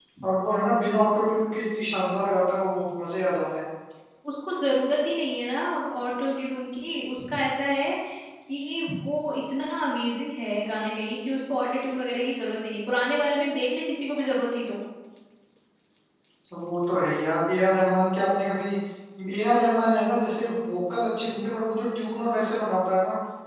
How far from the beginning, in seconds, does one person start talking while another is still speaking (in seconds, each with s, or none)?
none